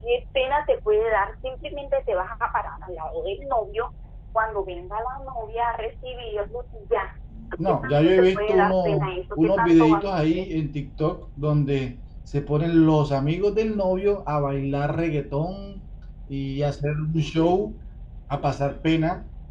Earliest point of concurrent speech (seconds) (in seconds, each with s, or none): 7.7 s